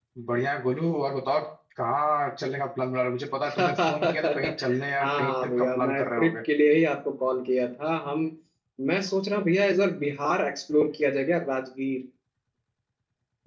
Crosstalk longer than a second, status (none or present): present